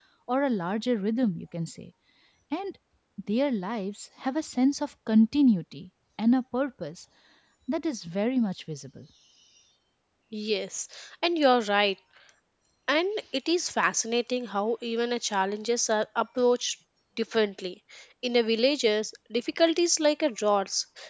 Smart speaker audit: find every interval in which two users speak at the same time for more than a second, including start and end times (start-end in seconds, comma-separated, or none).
none